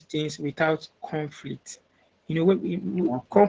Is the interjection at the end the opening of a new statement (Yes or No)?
No